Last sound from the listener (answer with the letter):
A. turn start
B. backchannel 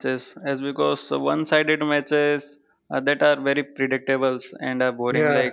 B